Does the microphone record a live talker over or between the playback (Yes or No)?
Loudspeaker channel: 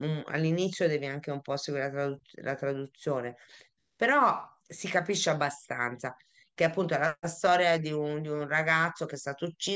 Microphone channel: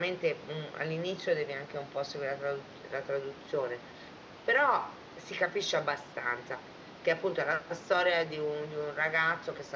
No